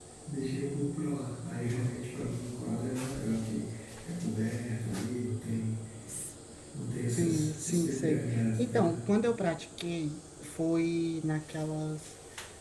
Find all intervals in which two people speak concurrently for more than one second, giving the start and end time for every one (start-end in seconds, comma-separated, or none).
7.2-9.1